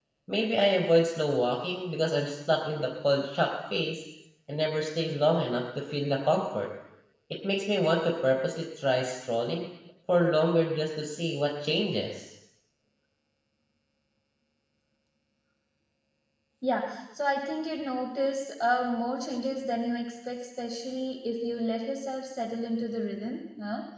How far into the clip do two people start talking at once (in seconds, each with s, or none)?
none